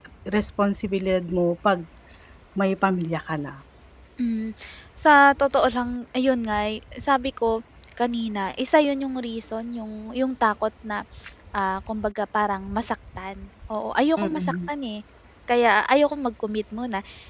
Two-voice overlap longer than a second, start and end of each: none

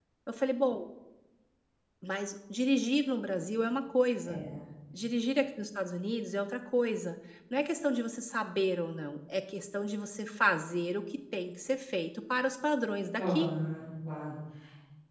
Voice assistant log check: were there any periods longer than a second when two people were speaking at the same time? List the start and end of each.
none

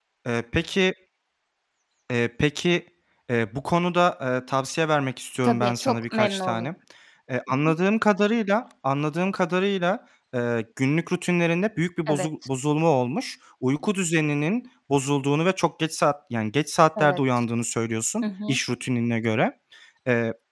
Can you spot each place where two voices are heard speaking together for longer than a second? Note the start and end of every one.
5.4-6.7

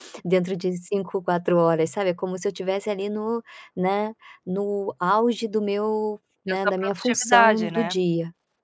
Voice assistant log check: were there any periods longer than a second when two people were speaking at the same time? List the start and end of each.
6.5-8.0

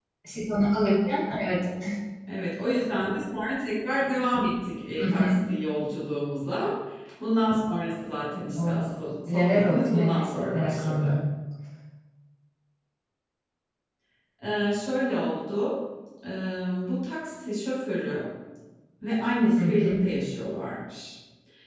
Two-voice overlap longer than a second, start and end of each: 9.3-11.2

